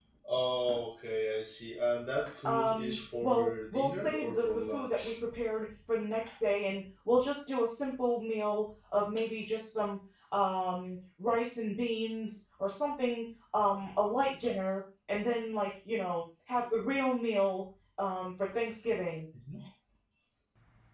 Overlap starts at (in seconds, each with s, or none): 2.5 s